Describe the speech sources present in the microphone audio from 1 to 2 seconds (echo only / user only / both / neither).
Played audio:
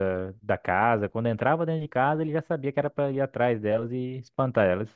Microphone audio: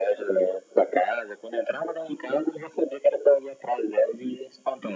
echo only